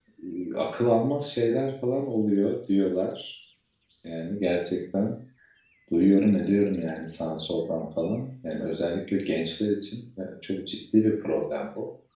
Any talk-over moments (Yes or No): No